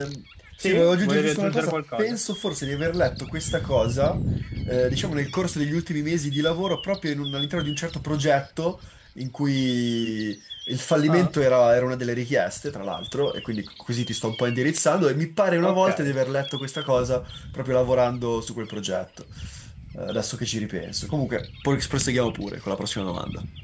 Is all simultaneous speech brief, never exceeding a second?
No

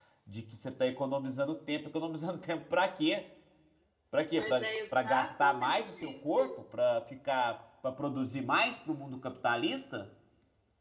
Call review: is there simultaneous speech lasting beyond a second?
Yes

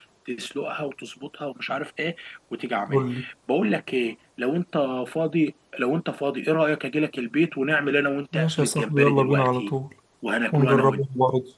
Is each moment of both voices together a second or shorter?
No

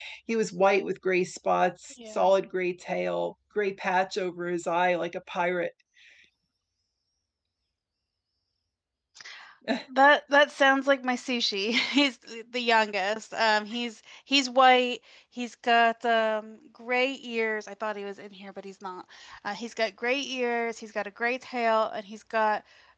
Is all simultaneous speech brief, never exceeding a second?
Yes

